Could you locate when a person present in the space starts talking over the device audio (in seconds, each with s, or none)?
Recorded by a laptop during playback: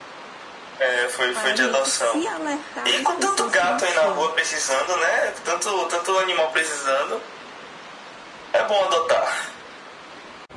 1.3 s